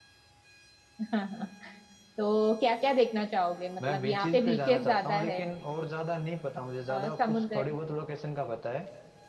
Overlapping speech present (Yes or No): Yes